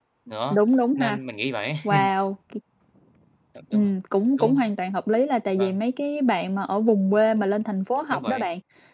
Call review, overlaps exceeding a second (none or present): none